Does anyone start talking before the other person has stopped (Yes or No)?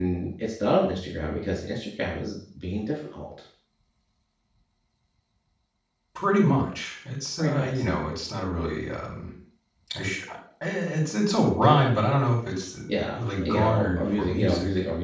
Yes